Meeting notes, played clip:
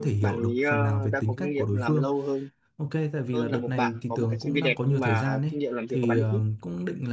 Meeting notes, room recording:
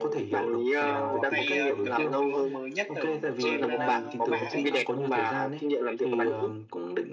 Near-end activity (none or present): present